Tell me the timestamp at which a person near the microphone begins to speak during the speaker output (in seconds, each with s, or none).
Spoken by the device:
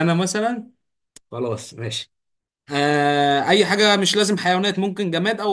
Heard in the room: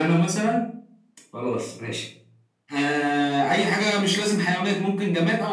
none